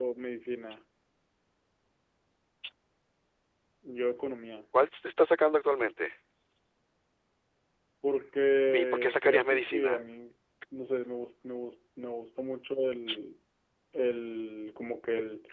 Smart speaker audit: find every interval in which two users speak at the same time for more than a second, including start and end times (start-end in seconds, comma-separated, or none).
8.7-10.0